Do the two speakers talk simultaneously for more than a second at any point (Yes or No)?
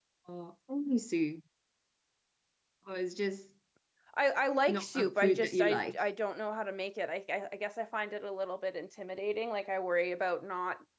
Yes